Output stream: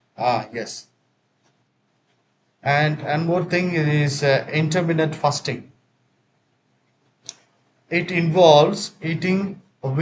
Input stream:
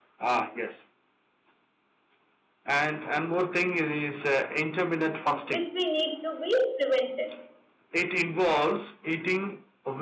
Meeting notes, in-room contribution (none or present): present